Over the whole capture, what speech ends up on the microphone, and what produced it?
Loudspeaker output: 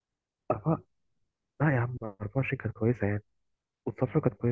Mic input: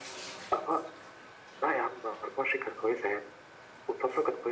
echo only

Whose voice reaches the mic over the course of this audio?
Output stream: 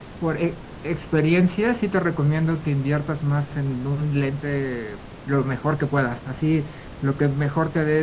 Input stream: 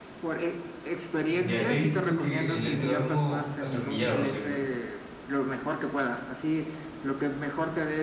both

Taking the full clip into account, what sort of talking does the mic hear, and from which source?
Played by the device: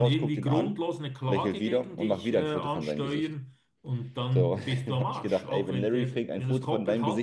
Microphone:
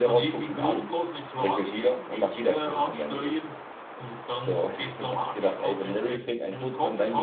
echo only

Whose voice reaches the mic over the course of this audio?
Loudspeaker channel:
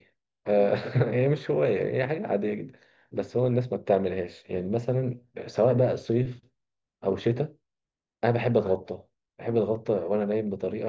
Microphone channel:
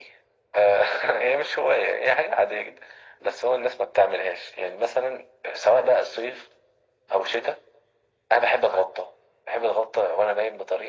echo only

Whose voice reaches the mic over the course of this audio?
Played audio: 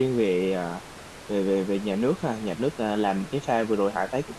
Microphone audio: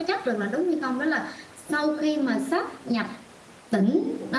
user only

